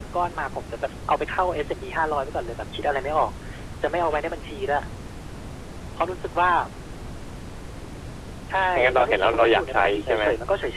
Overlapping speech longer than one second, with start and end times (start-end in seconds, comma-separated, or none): 8.8-10.2